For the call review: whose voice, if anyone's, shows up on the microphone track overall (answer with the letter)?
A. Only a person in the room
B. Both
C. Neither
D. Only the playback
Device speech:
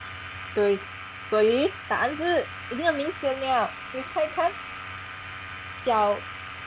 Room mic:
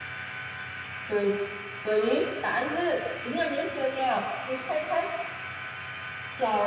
D